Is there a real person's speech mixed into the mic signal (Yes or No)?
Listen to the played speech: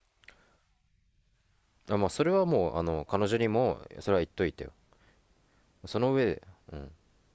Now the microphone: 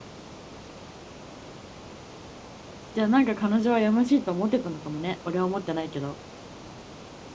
Yes